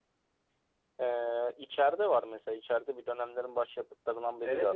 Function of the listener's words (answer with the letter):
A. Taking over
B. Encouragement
A